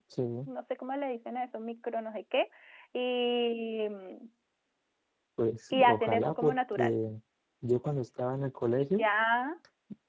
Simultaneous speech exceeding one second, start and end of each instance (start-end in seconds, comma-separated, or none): 5.7-6.9